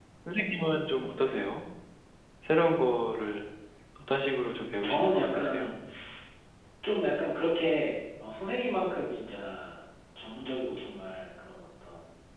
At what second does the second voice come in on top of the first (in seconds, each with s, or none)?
4.3 s